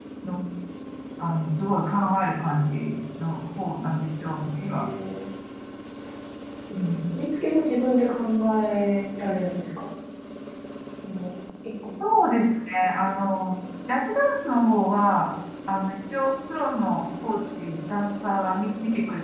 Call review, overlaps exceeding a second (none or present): none